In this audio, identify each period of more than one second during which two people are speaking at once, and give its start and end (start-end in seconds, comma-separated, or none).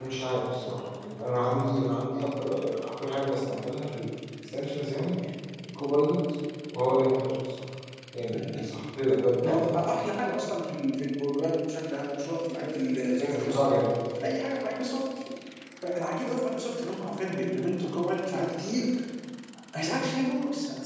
none